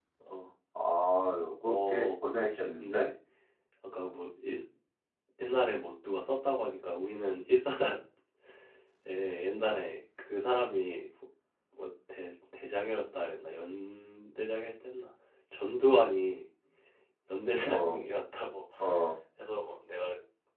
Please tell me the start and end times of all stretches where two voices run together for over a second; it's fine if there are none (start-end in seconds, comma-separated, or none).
1.7-3.1